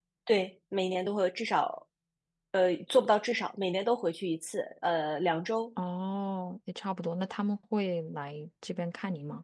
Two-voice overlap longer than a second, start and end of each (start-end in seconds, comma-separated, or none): none